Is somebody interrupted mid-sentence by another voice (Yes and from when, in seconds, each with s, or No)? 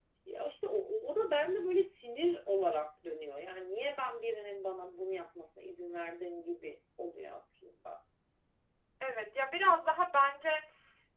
No